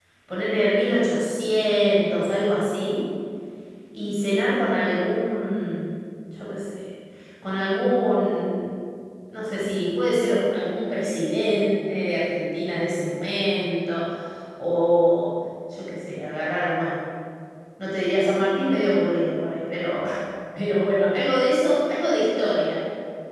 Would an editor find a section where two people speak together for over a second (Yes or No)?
No